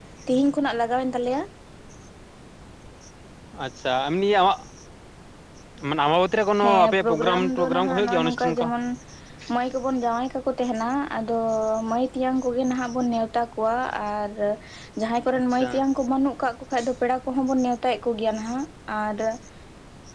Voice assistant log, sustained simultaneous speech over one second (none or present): present